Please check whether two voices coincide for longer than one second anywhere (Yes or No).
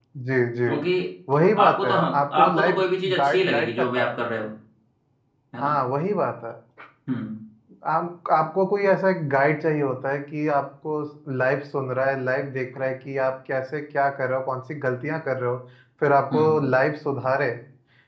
Yes